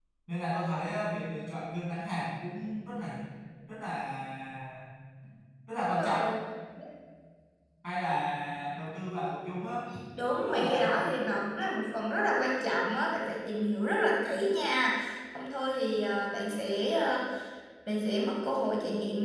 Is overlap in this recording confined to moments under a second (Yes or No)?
Yes